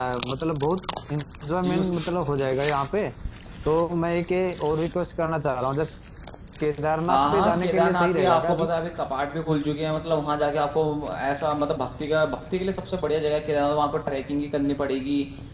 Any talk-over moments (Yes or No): Yes